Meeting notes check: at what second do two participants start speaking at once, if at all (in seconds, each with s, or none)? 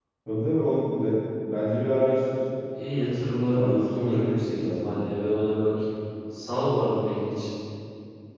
3.5 s